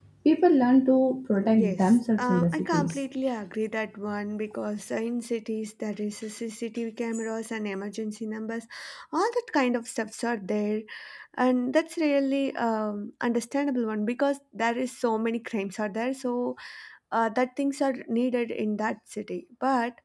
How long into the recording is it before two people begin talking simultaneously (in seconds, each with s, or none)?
1.4 s